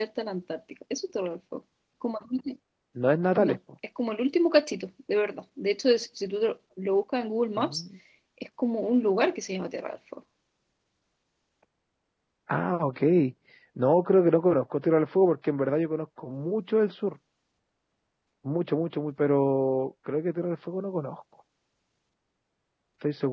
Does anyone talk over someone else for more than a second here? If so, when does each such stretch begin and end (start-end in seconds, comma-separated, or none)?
none